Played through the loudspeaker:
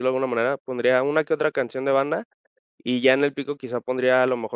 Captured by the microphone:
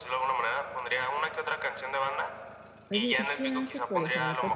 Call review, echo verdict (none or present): present